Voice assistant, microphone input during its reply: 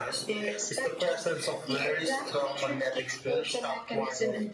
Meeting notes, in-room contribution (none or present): none